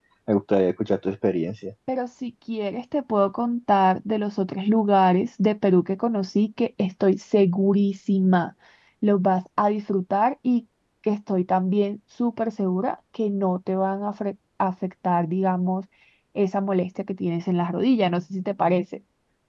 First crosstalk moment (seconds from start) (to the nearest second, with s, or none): none